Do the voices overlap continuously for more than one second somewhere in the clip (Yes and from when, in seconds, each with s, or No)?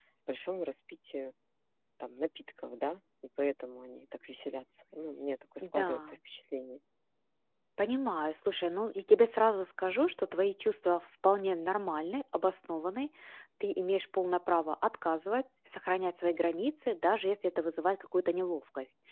No